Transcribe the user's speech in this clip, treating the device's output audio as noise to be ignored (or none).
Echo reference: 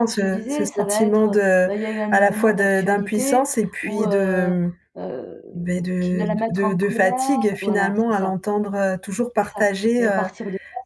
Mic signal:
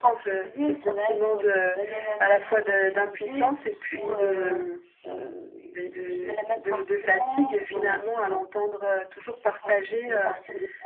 none